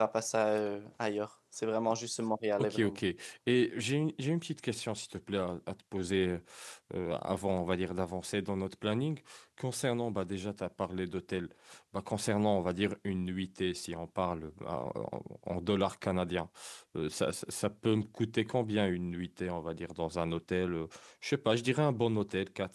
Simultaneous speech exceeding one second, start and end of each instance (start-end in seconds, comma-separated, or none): none